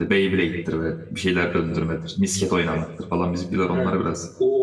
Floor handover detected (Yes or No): Yes